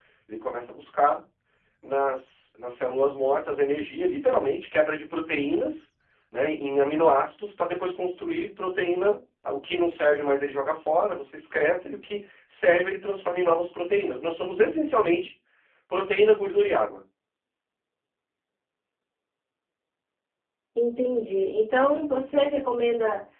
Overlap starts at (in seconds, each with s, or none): none